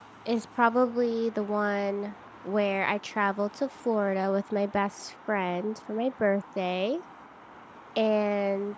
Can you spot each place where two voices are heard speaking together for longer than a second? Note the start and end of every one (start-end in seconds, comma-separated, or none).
none